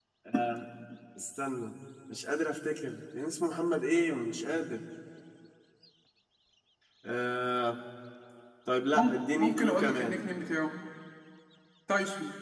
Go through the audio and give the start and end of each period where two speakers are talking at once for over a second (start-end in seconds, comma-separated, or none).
8.9-10.2